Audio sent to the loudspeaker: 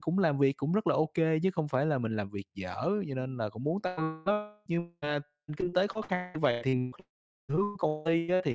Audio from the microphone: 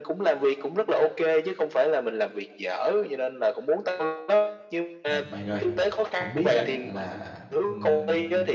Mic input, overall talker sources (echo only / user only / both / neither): both